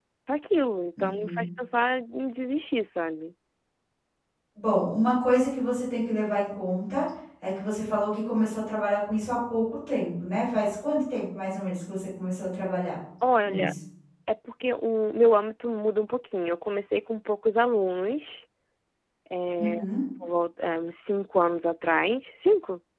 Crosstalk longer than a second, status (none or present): none